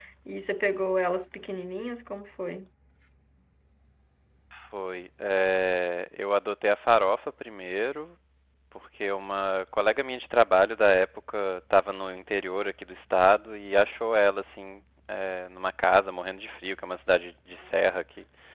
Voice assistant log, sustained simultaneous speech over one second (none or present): none